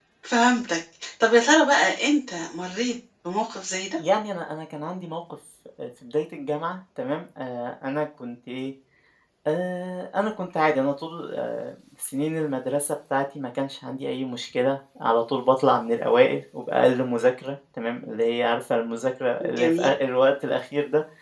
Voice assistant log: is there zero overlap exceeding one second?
Yes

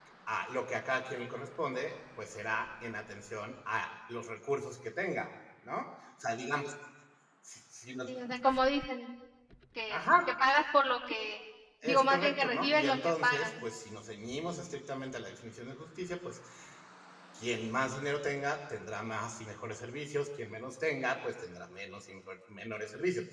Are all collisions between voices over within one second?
No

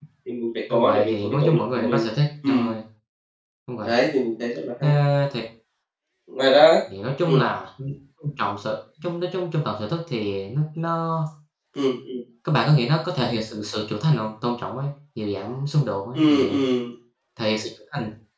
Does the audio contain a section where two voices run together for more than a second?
Yes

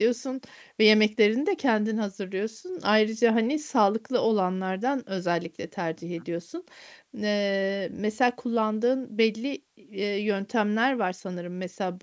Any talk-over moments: No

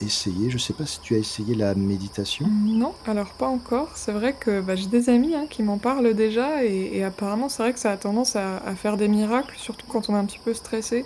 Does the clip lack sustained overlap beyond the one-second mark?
Yes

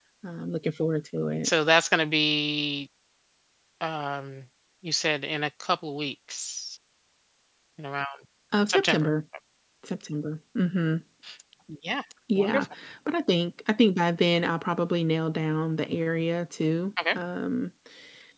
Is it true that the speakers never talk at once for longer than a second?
Yes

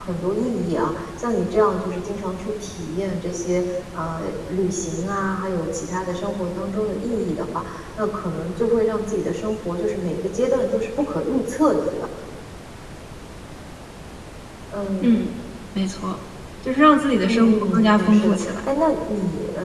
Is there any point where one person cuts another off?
Yes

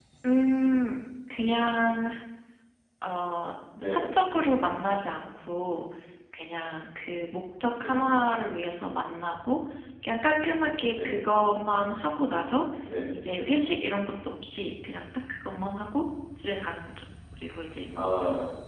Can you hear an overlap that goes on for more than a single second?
No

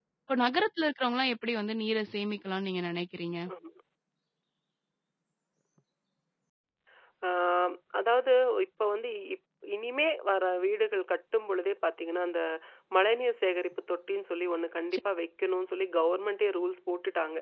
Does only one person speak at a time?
Yes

